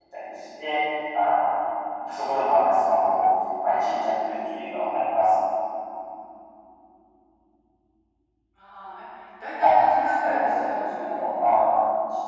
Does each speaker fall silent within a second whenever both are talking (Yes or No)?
No